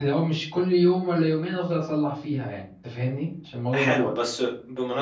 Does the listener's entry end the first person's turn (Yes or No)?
Yes